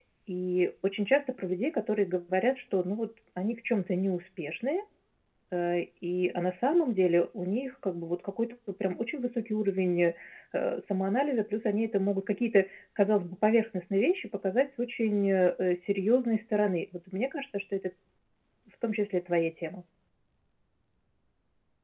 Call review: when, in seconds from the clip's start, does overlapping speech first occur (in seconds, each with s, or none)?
none